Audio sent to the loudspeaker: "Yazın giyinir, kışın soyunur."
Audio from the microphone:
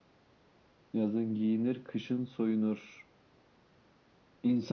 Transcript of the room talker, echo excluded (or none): none